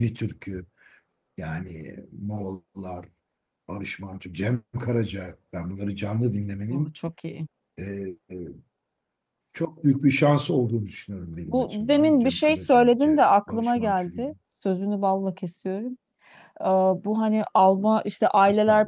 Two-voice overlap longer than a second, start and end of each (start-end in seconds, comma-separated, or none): 11.5-14.2